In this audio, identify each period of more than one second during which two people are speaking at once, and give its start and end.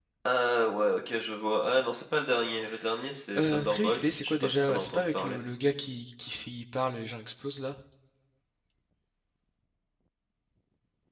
3.4-5.4

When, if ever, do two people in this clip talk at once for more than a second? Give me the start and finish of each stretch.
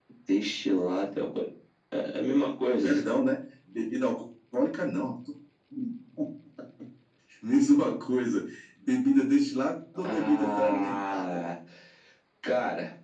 10.0-11.5

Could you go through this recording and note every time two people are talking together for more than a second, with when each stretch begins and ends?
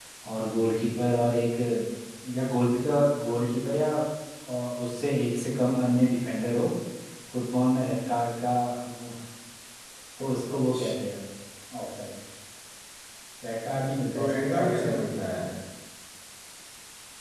14.1-15.4

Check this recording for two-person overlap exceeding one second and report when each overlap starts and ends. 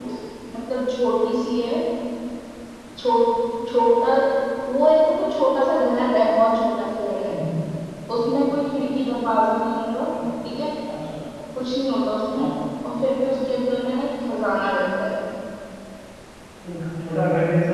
none

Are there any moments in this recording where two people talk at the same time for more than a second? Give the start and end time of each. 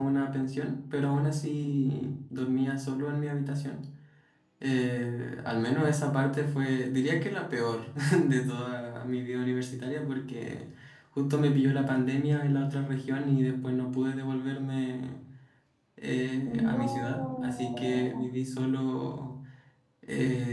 16.4-18.2

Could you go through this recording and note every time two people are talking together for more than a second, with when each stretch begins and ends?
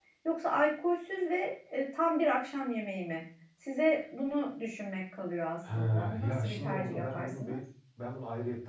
5.8-7.6

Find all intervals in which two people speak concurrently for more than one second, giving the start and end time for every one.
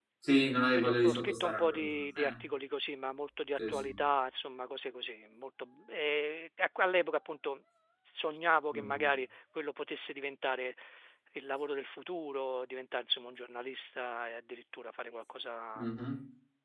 0.8-2.3

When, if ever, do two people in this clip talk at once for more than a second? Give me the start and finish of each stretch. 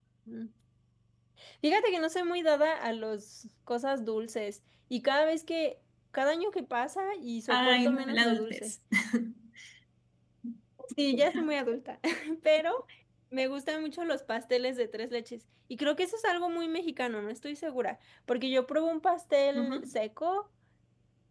7.5-8.7

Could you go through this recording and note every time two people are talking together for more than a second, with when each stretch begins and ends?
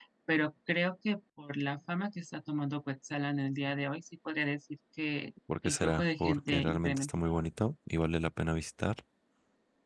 5.6-7.1

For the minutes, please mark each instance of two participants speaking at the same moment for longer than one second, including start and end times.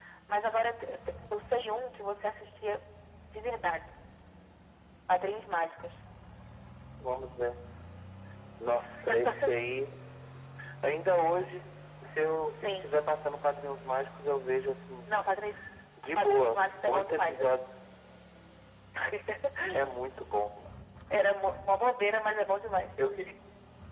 16.2-17.5

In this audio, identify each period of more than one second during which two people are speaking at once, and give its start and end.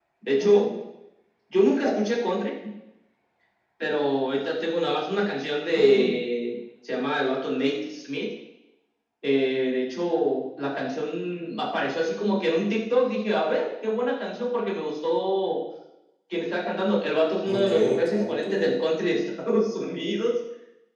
17.4-18.8

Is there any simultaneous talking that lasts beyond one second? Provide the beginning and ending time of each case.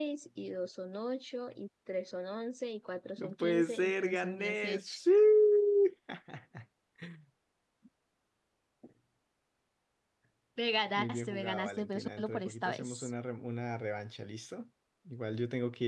3.2-5.0, 11.0-13.1

